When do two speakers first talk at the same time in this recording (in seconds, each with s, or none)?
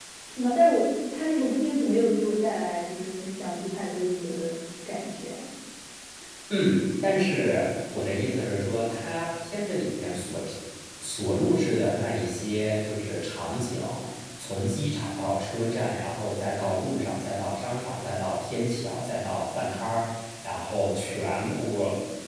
none